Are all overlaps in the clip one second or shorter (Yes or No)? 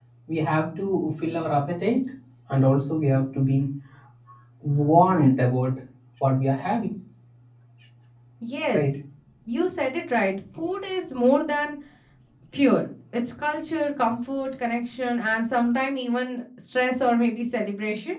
Yes